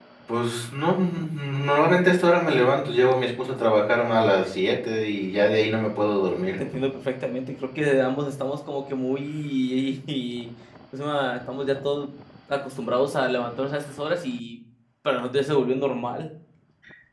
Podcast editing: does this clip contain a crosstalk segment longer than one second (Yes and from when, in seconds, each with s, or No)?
No